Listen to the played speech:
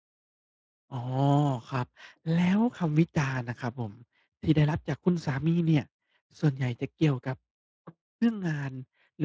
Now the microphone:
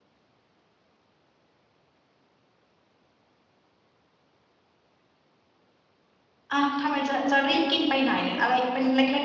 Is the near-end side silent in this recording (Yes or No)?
No